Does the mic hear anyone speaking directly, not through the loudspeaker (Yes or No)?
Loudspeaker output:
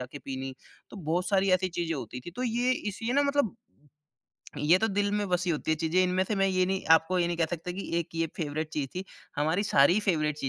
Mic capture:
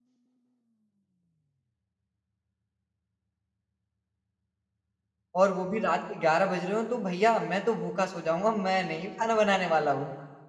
Yes